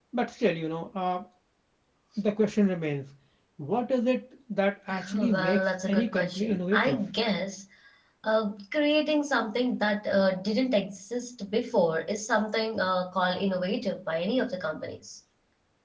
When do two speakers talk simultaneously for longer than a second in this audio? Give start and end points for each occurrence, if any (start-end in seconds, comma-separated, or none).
5.2-7.0